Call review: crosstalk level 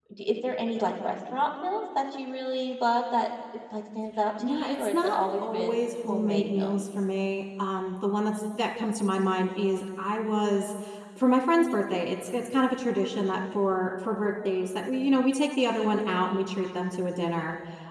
present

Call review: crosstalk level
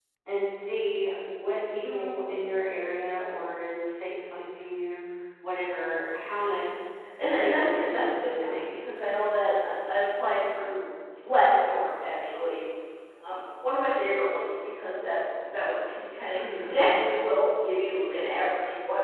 present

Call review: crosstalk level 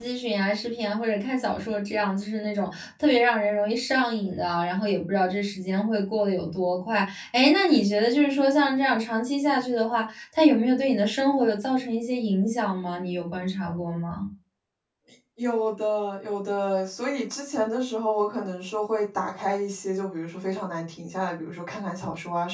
none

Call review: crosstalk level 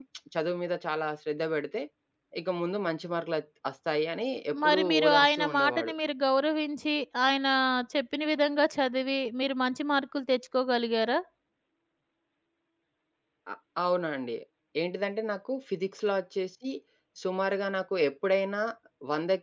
present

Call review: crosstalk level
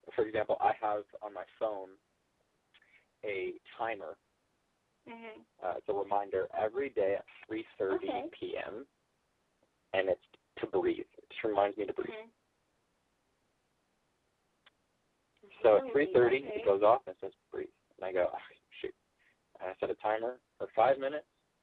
present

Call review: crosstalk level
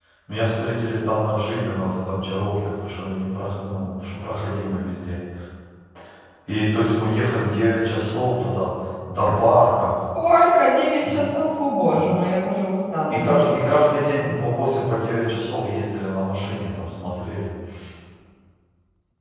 present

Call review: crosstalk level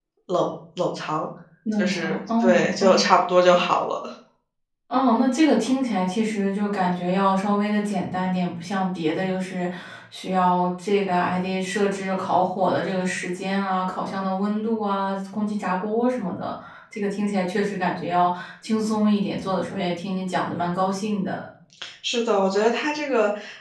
present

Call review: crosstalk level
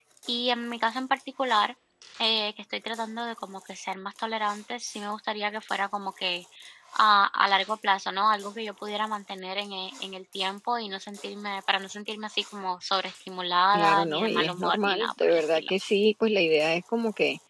present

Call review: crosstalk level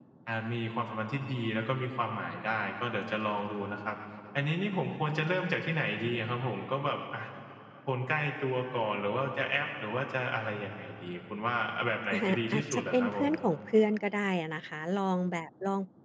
present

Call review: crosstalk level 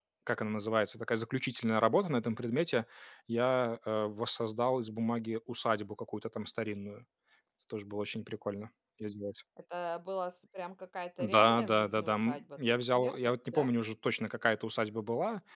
present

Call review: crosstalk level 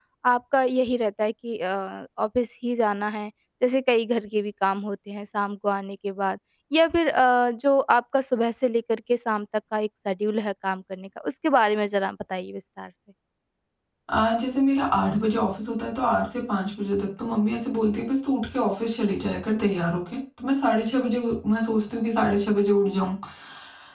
none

